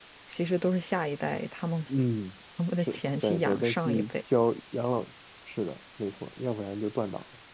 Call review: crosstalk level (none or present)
present